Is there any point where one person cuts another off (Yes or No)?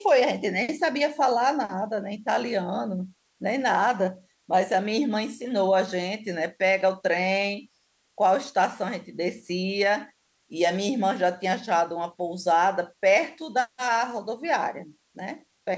No